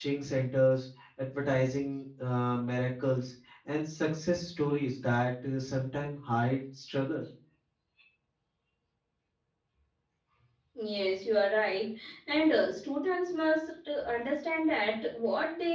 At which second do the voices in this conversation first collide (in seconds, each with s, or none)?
none